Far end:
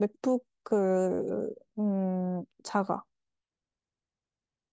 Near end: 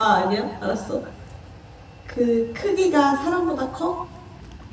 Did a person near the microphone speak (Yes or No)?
Yes